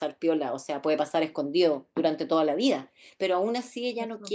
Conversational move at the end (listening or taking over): listening